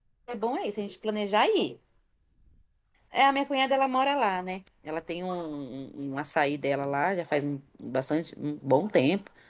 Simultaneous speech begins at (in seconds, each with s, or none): none